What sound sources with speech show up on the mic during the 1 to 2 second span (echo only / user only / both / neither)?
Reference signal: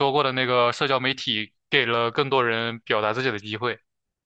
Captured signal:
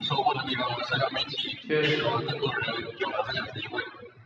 both